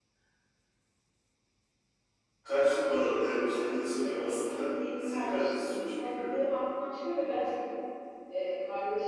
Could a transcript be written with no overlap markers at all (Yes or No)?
No